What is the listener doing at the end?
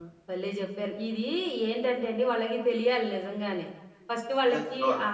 listening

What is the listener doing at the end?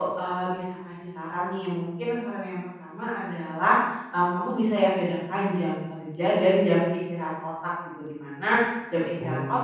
listening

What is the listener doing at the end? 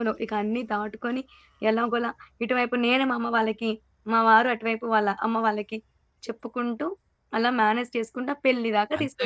taking over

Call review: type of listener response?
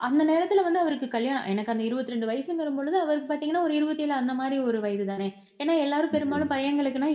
listening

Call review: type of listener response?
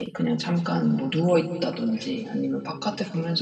listening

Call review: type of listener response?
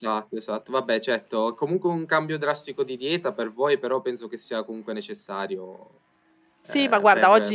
taking over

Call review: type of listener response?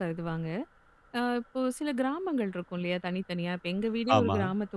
listening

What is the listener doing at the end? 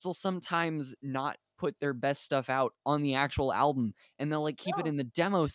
listening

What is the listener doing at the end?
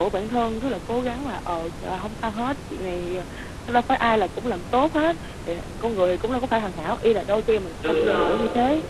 listening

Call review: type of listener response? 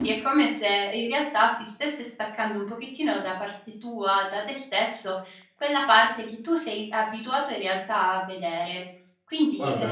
listening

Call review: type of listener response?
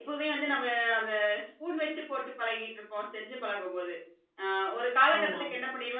listening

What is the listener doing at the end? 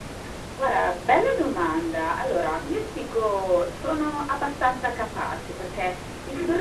listening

